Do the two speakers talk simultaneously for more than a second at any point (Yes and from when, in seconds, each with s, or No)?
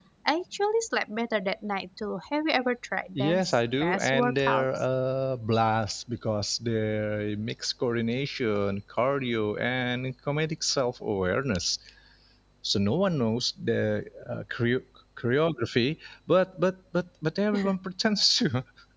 Yes, from 3.1 s